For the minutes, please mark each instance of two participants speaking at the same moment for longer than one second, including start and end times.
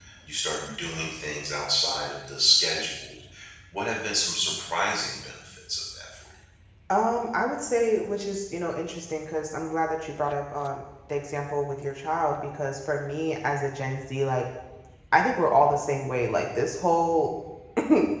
none

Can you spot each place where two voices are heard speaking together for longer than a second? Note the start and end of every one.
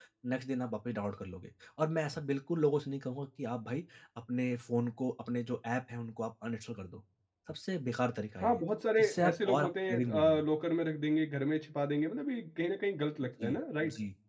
9.0-10.4

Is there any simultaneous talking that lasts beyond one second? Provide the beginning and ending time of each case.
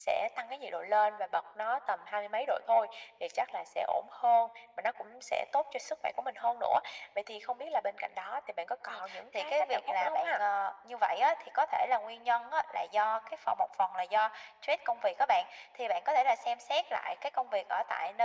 8.9-10.4

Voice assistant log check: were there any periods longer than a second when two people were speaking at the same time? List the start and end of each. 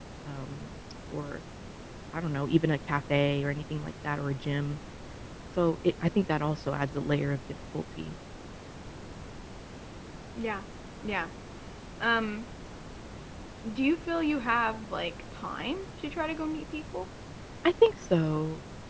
none

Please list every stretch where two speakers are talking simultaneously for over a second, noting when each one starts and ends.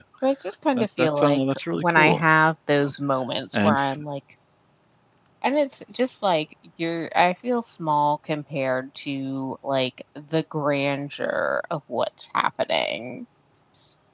0.8-2.2

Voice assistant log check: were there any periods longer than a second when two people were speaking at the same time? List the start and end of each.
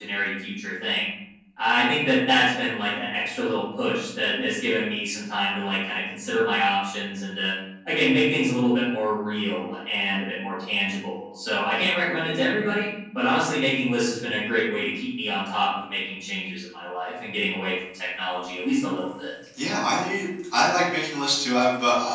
none

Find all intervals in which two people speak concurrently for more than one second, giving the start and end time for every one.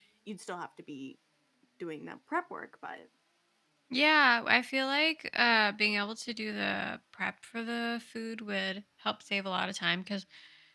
none

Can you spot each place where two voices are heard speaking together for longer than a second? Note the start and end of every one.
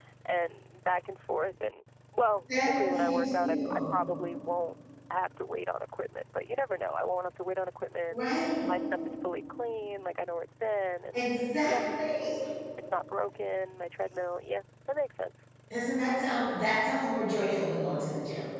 2.5-3.9

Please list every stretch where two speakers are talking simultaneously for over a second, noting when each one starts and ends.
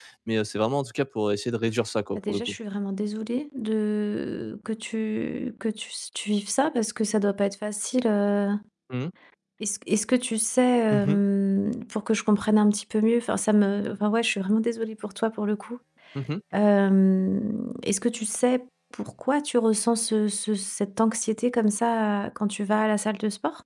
none

